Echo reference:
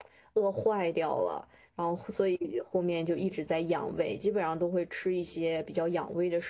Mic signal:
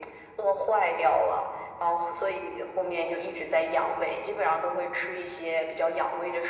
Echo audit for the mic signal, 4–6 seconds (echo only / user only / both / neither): echo only